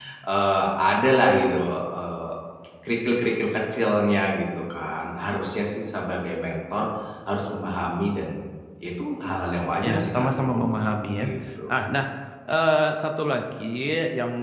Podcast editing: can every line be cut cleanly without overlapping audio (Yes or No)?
No